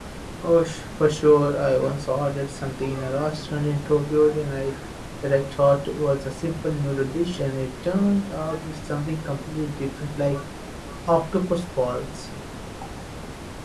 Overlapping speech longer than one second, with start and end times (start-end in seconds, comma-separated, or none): none